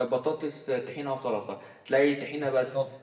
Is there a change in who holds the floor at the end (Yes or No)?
No